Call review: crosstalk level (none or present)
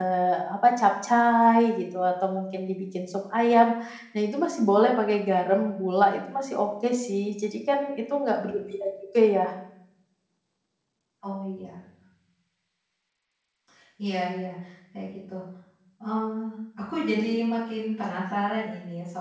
none